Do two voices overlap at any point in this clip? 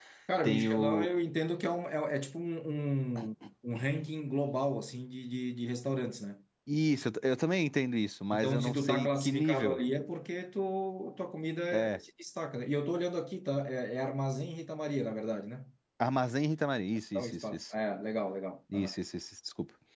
Yes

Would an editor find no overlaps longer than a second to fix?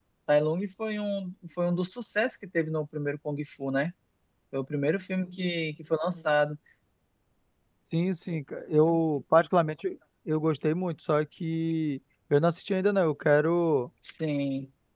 Yes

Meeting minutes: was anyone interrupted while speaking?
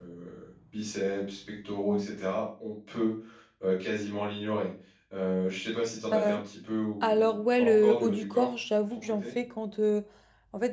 Yes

